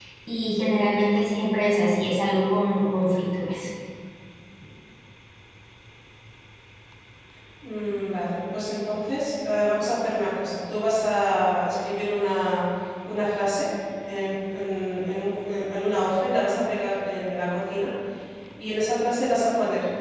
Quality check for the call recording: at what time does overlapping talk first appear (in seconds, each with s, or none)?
none